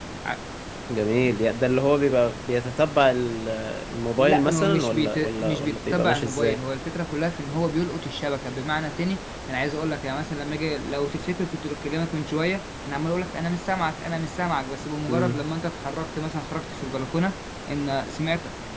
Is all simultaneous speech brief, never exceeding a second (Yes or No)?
No